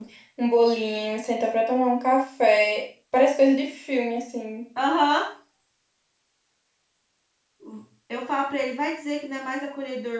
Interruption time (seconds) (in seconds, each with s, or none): none